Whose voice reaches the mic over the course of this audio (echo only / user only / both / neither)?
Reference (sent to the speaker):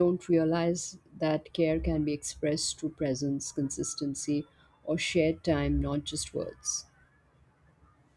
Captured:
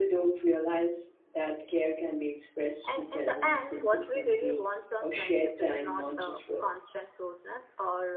both